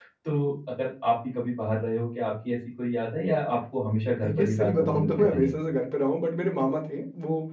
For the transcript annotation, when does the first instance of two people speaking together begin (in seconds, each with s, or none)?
4.2 s